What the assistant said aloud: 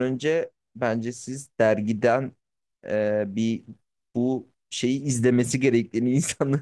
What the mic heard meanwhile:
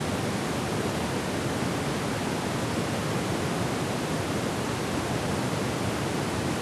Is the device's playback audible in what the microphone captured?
No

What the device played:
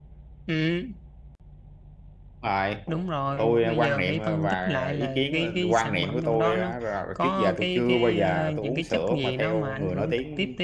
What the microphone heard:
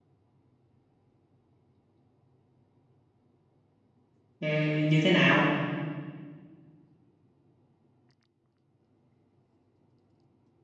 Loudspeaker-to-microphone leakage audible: No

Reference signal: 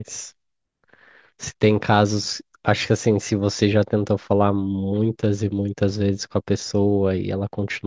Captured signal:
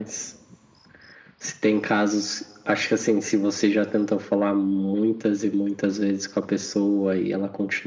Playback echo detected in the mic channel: Yes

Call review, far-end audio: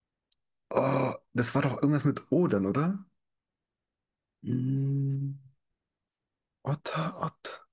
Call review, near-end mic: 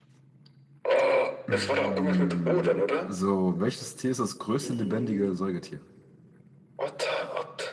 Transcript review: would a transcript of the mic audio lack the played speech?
No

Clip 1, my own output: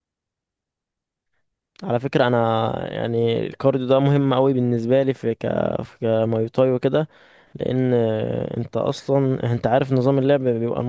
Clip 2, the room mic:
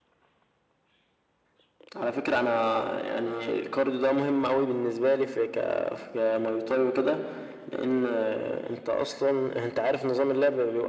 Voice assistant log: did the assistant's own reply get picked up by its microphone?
Yes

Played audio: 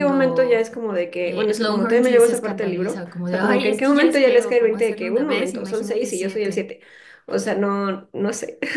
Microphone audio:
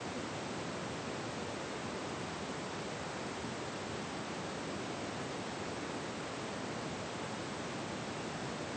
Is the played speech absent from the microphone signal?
Yes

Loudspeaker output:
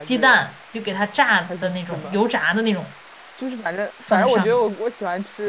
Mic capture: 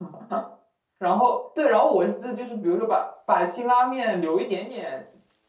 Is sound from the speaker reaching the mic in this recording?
No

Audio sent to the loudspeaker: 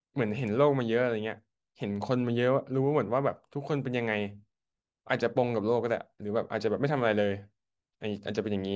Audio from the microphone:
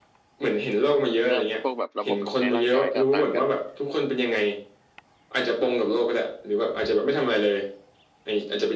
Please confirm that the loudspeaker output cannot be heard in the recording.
No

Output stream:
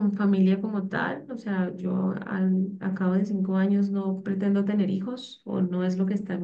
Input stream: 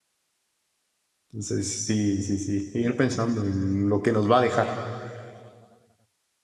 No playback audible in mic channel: Yes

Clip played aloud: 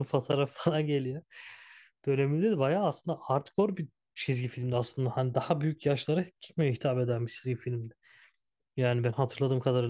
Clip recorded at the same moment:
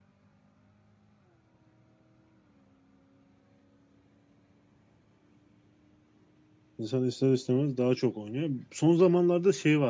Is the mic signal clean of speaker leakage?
Yes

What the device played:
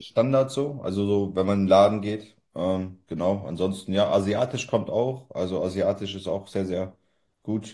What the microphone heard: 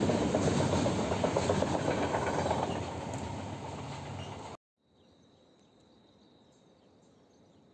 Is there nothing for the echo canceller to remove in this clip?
Yes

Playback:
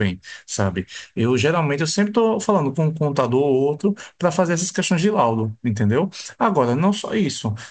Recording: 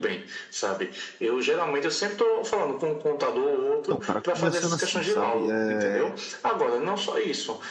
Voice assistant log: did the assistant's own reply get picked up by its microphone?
Yes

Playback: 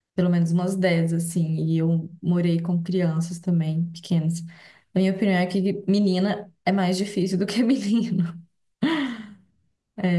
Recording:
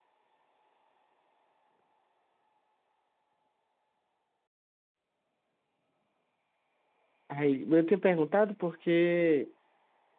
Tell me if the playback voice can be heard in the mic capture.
No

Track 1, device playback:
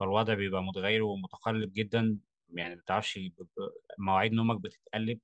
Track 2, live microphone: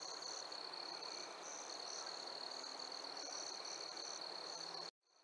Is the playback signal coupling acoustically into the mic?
No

